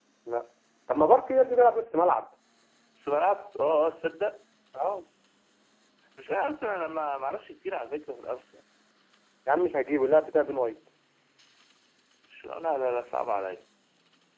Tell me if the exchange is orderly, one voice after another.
Yes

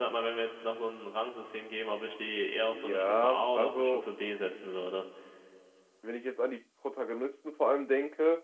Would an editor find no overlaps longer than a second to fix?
No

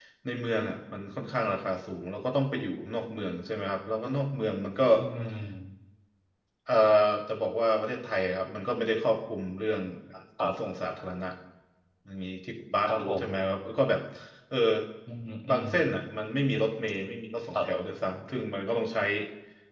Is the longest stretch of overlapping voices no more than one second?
Yes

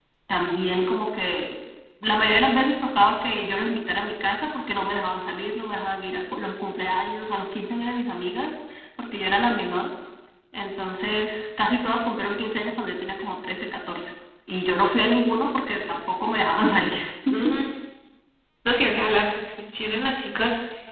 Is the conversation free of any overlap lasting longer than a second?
Yes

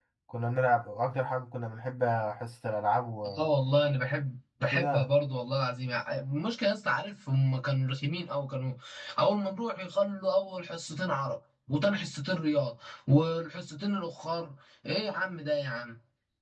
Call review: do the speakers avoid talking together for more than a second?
Yes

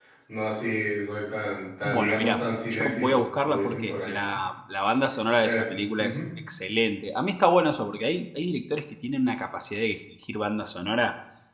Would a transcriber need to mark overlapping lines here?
Yes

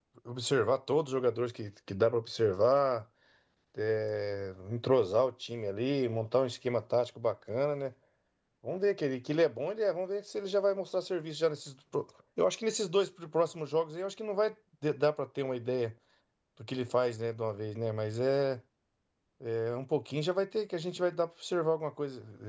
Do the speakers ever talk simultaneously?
No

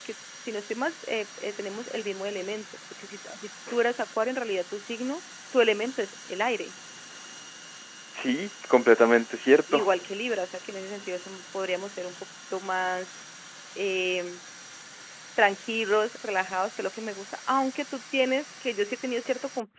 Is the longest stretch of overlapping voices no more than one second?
Yes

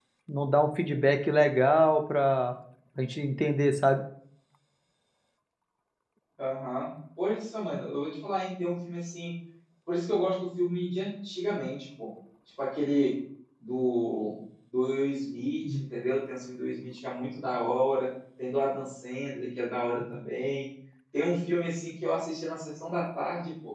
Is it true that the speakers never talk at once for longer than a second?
Yes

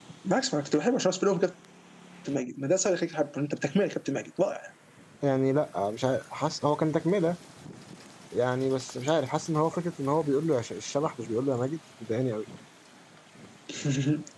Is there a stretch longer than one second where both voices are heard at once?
No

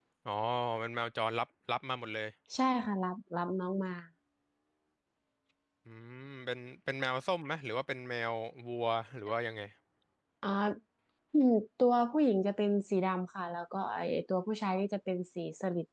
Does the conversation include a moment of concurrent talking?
No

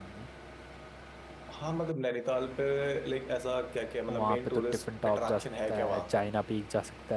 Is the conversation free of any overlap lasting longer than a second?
No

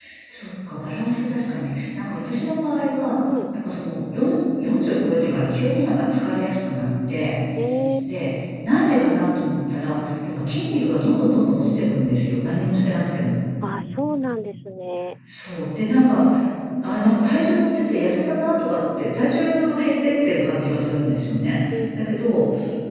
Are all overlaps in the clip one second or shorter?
Yes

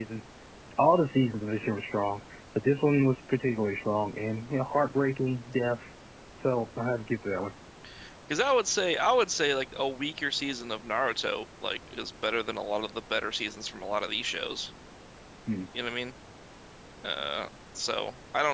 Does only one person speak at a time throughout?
Yes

